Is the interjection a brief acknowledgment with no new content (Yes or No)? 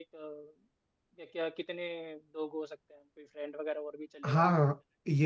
No